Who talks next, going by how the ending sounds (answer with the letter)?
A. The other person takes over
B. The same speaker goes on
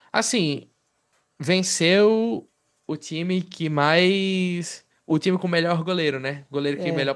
B